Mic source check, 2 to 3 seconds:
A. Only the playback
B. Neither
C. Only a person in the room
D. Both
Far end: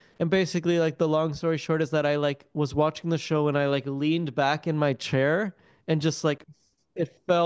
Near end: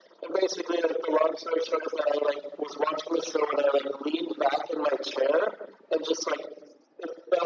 A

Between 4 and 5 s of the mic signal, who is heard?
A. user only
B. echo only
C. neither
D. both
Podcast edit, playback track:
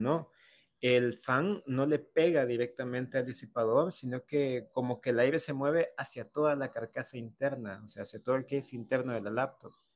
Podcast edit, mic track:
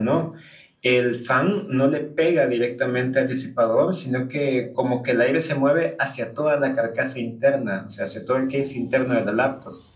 B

